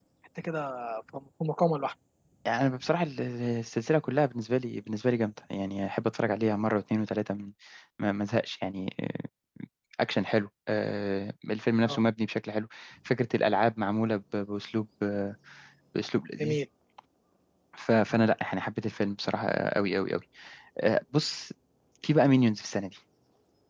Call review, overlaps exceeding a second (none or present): none